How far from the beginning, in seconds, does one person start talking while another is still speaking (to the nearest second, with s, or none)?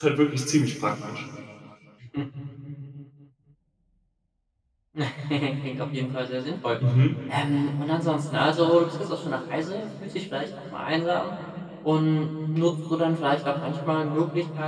none